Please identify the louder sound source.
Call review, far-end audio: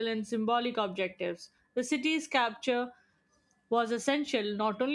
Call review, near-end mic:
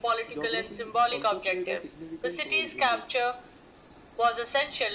echo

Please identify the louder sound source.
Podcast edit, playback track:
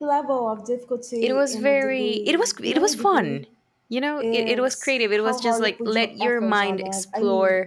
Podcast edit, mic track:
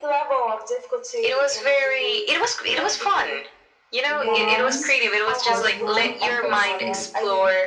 echo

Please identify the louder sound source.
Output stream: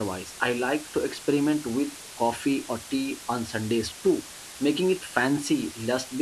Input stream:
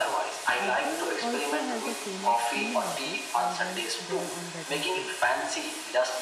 echo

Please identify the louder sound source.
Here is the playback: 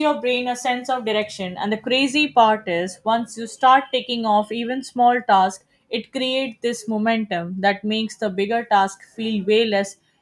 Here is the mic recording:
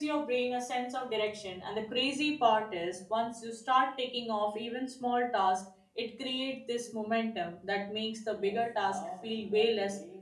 echo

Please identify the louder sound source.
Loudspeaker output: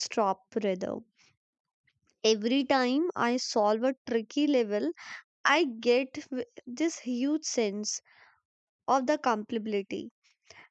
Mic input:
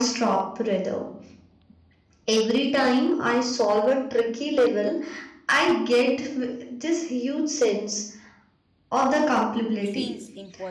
echo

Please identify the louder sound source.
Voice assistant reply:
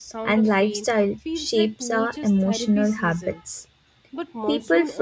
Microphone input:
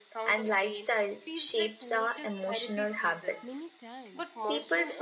echo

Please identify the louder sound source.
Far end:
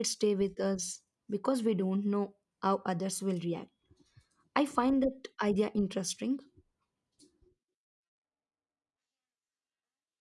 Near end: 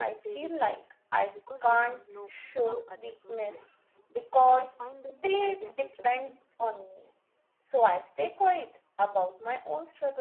user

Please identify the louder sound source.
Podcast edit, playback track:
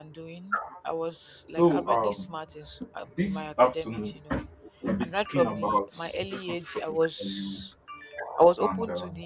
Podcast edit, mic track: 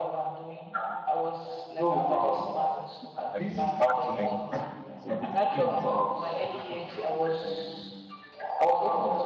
echo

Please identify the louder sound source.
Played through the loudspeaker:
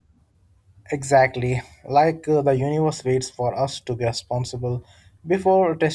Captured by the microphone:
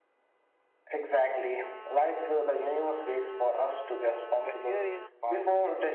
echo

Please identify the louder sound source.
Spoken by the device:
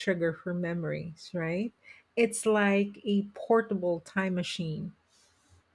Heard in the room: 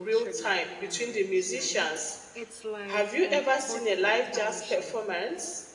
user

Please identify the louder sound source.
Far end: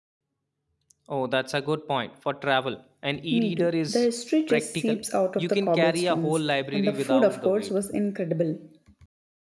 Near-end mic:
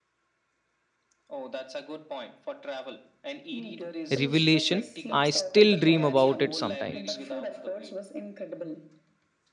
user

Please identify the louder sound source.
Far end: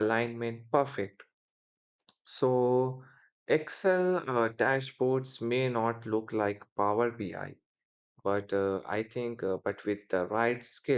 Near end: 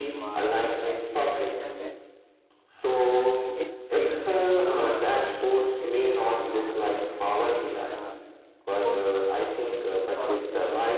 echo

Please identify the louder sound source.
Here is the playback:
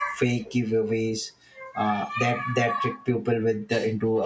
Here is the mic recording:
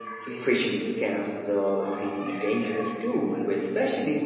user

